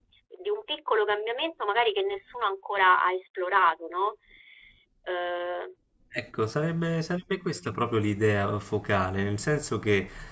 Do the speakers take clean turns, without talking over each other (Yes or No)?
Yes